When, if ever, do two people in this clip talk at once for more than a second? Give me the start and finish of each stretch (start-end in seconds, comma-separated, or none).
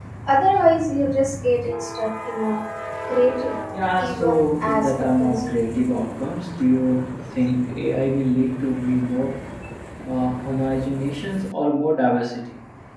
4.0-5.5